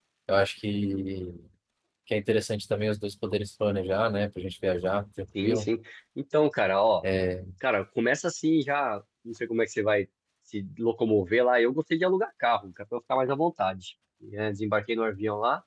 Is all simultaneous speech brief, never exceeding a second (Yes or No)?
Yes